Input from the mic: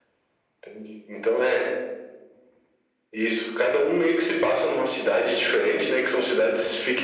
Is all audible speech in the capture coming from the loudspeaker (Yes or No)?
Yes